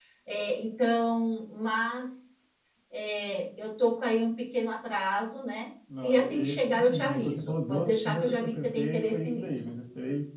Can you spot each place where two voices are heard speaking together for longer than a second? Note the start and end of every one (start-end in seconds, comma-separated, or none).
6.0-9.5